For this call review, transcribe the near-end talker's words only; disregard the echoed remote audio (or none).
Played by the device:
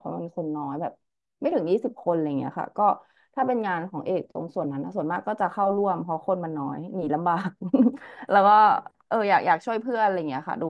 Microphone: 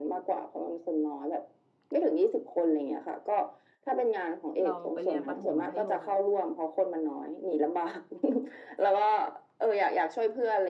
เราไปเรียนประถมมัธยม